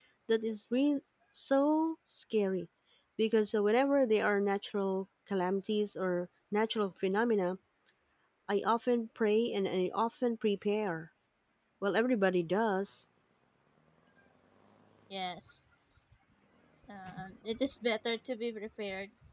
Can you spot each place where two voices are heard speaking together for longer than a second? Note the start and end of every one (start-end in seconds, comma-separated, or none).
none